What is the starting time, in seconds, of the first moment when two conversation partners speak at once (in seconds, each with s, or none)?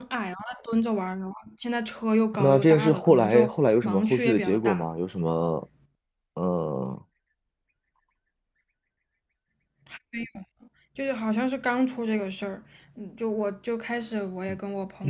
2.3 s